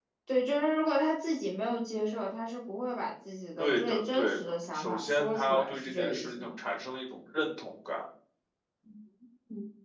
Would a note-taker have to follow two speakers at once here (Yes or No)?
Yes